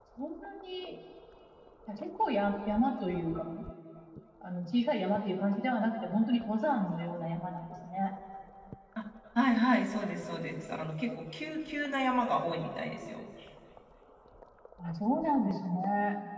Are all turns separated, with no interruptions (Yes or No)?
Yes